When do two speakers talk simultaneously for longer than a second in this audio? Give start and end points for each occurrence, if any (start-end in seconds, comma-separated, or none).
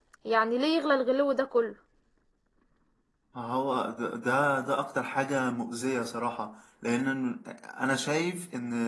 none